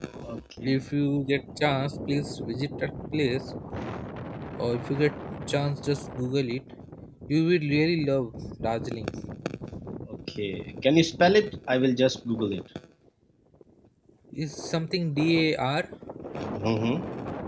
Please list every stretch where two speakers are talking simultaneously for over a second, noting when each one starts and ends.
none

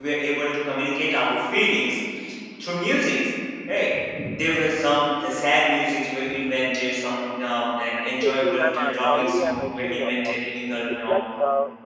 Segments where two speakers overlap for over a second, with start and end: 7.9-10.4

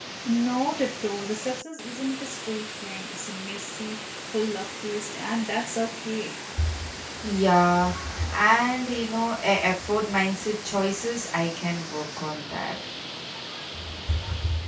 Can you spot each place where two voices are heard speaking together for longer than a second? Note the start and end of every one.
none

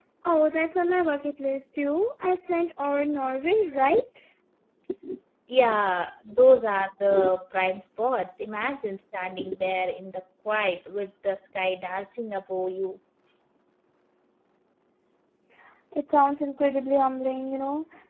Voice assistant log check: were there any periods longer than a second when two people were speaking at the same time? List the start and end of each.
none

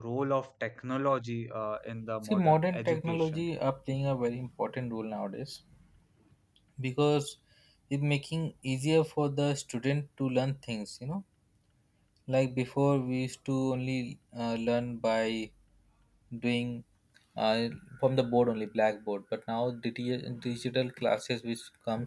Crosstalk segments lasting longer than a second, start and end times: 2.2-3.4

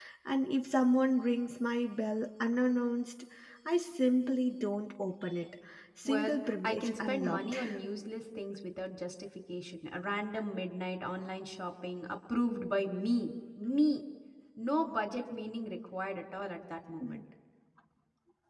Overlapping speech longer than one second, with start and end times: 6.0-7.5

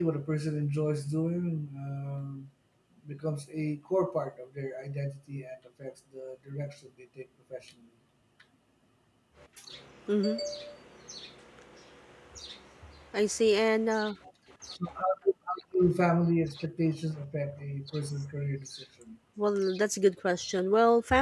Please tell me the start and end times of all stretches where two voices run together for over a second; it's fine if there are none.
none

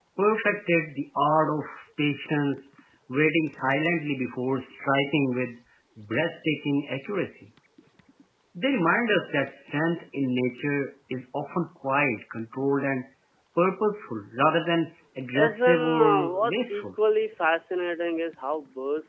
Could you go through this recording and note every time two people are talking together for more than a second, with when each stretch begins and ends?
15.4-16.9

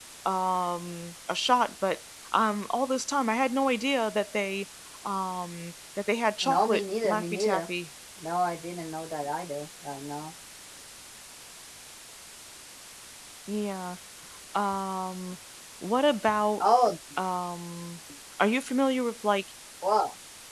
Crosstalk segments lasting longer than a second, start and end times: 6.4-7.7

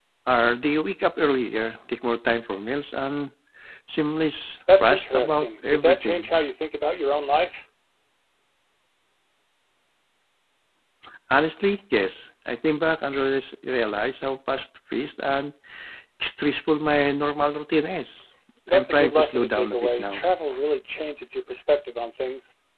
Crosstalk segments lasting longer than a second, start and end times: 4.8-6.3, 18.7-20.2

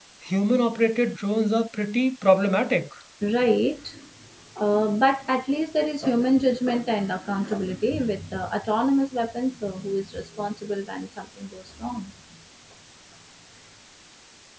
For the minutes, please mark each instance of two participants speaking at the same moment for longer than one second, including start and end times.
none

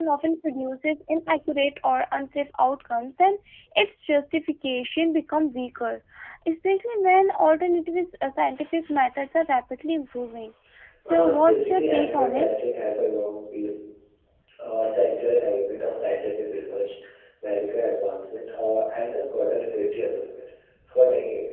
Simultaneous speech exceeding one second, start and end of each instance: 11.1-12.5

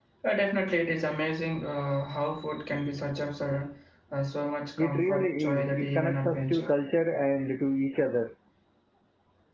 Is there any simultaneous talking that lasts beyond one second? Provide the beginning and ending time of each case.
4.8-6.7

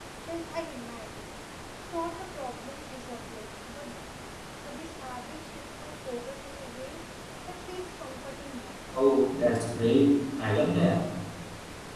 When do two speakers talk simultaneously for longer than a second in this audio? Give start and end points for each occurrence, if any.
none

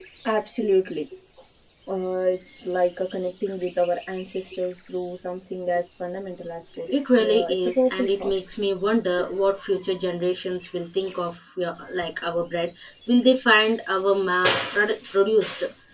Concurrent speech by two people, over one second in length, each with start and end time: 6.9-8.3

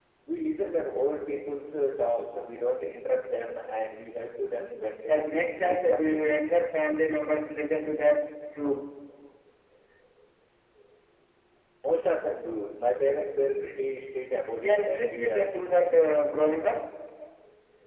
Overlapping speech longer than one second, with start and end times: 5.1-6.3, 14.6-15.8

